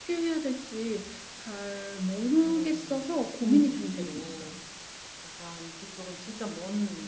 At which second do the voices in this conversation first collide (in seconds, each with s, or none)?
2.4 s